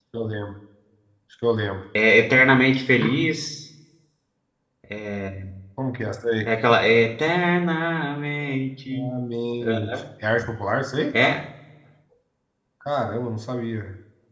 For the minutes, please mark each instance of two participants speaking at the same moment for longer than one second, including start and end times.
none

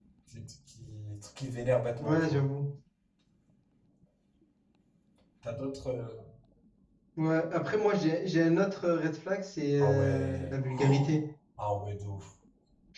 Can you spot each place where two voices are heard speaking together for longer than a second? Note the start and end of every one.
9.8-11.1

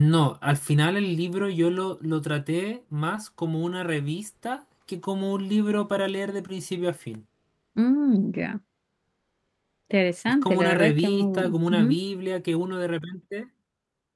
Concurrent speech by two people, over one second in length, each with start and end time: 10.4-12.0

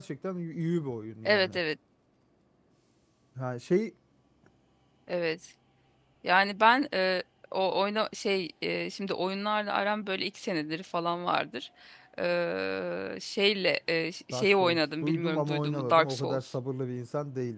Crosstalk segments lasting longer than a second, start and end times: 14.3-16.5

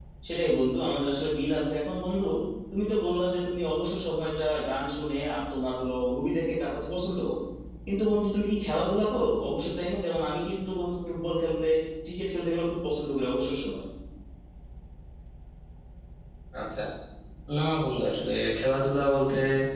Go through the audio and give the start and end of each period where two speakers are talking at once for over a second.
none

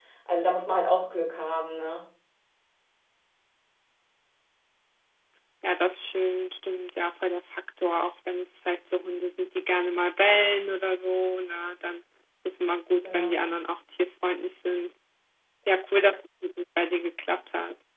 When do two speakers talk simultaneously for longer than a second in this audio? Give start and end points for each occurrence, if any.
none

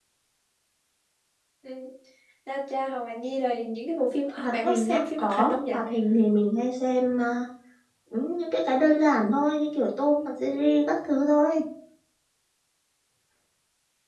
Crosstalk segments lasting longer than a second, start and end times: 4.3-5.6

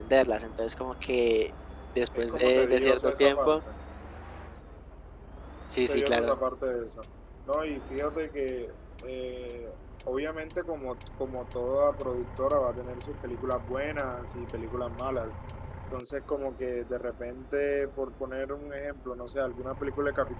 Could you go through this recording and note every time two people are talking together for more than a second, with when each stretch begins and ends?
2.2-3.6

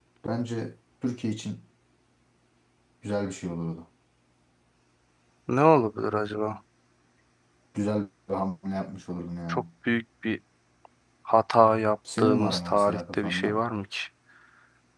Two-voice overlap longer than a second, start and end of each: 12.2-13.6

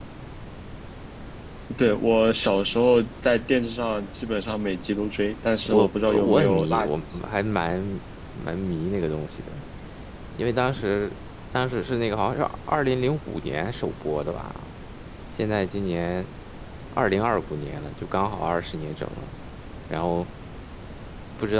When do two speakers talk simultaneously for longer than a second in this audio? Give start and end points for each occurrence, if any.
5.7-7.2

